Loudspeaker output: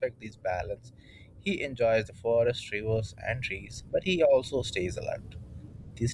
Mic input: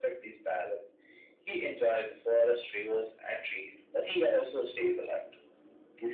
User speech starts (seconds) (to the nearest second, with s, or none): none